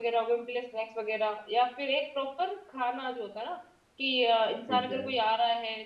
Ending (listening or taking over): listening